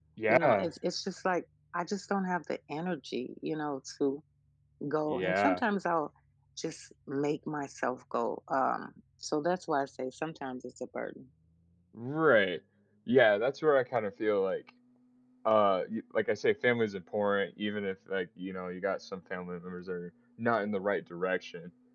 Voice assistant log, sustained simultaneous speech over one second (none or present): none